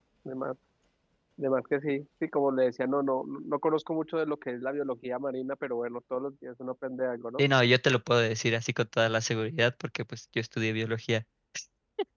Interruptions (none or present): none